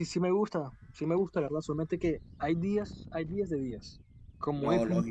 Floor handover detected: No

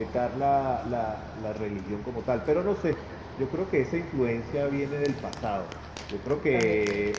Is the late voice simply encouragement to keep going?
Yes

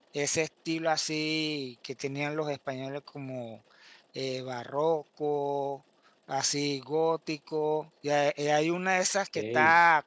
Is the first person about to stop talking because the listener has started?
No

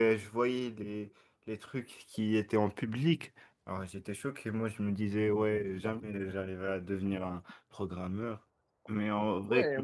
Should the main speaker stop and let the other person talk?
Yes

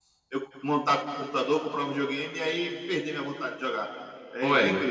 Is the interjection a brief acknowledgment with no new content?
No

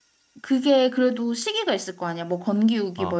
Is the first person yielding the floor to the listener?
Yes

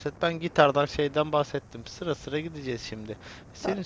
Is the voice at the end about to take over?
No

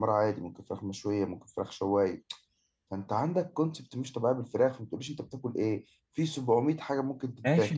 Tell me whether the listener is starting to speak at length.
Yes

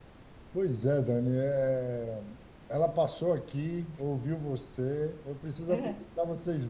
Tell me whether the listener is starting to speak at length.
No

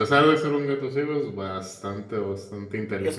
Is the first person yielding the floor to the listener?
Yes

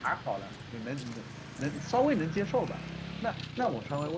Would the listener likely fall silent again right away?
Yes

